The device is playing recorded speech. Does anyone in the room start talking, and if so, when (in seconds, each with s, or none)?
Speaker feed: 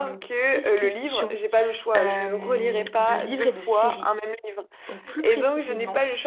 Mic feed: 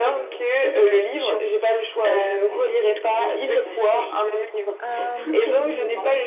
4.8 s